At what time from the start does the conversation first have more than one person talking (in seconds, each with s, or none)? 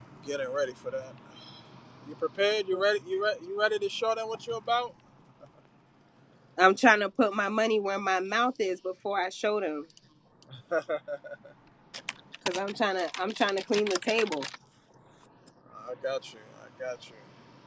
none